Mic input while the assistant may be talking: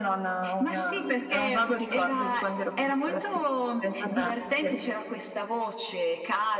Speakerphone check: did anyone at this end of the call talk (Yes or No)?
No